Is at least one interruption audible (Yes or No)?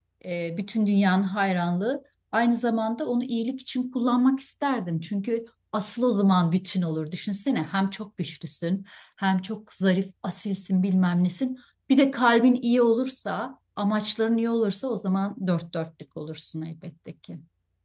No